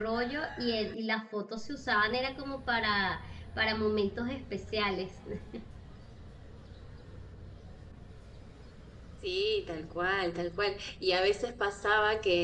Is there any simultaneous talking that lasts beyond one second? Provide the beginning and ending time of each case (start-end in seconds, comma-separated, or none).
none